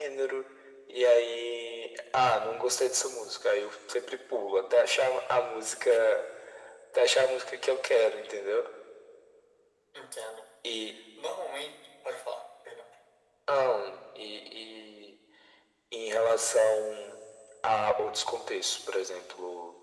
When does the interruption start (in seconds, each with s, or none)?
none